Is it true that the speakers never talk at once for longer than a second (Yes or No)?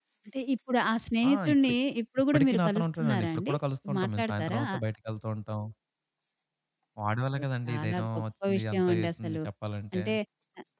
No